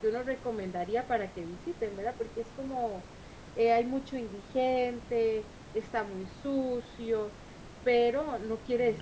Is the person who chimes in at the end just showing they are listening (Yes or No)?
Yes